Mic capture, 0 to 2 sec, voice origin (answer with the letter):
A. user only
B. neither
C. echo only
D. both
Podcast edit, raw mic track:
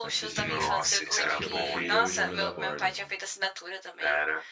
D